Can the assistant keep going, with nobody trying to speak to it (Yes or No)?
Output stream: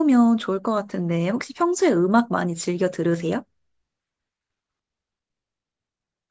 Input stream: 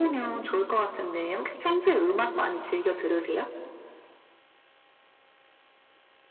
Yes